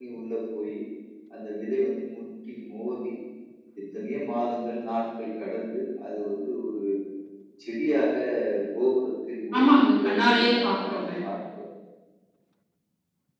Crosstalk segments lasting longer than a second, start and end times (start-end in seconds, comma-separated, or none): 9.6-10.8